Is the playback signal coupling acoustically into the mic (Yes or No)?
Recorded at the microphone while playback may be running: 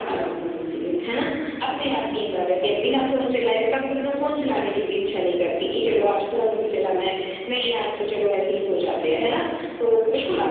Yes